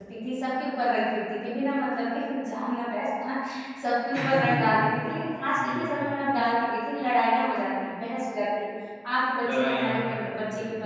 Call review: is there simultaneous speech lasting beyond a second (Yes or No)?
Yes